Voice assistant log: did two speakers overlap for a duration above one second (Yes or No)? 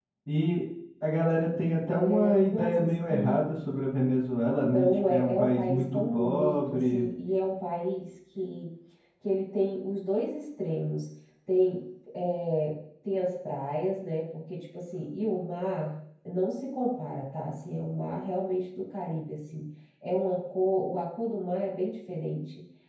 Yes